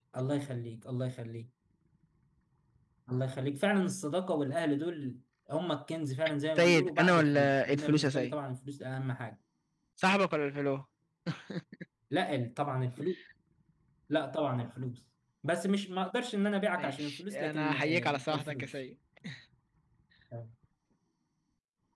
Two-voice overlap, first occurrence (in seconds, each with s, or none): 6.6 s